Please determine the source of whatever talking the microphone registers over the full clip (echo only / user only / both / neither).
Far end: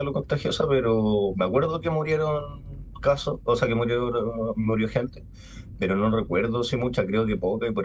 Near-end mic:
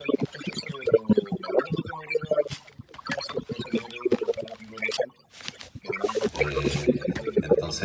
both